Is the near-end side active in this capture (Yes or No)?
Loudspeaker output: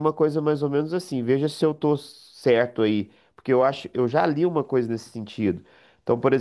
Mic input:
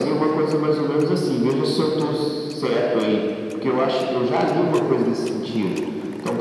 No